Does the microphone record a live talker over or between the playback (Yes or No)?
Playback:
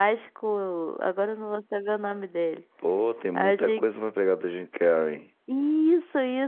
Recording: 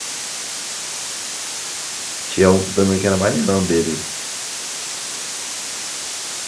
Yes